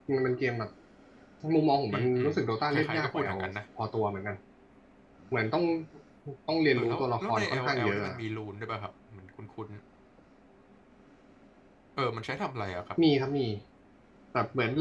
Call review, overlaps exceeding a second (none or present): present